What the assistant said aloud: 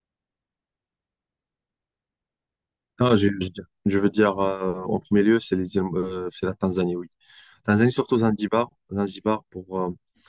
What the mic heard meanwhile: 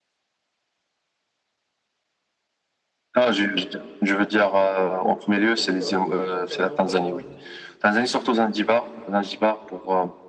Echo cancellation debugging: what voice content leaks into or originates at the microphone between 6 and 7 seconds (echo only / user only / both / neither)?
both